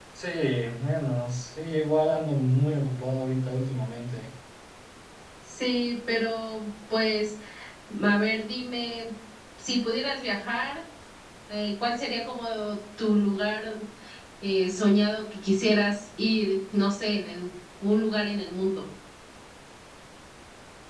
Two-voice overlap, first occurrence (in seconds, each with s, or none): none